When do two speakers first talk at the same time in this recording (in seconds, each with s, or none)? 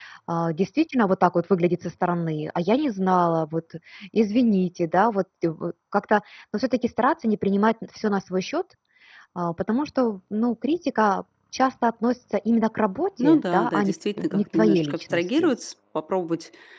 13.2 s